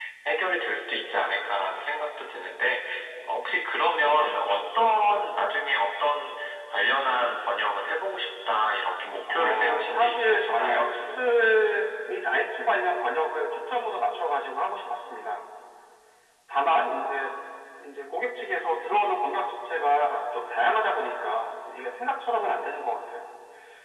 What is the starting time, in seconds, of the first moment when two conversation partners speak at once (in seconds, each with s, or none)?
9.3 s